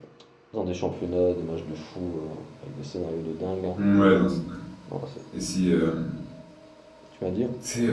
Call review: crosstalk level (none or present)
none